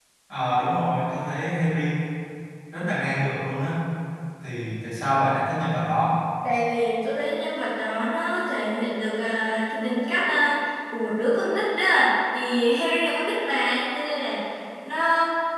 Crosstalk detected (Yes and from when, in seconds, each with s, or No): No